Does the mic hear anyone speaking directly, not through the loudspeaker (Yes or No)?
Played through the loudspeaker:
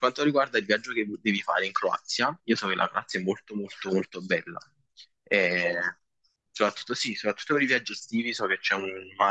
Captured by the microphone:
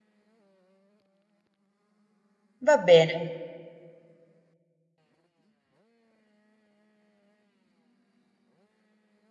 Yes